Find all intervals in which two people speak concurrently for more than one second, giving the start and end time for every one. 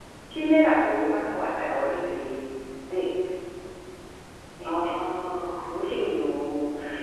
none

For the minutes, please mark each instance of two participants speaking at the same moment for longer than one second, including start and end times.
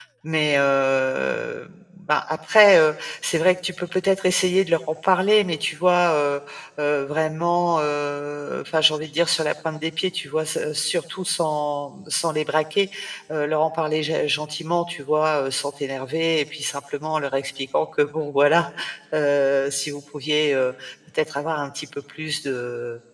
none

